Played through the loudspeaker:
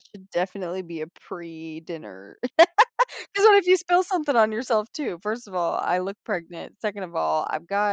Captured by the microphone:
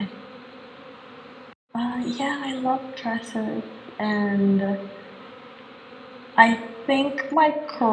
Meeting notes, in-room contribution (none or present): present